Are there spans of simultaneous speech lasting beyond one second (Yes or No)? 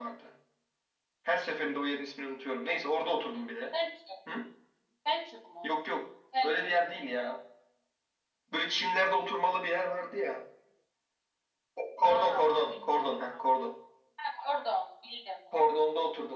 Yes